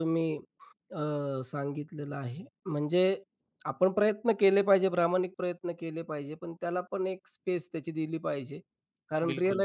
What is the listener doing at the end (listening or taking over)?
listening